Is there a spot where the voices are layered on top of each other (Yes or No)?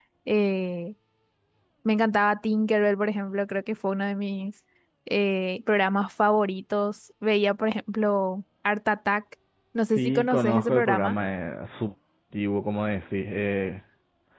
Yes